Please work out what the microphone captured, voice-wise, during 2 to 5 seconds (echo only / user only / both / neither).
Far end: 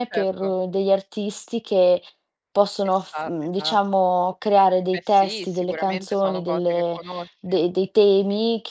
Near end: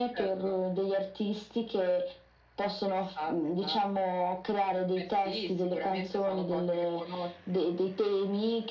echo only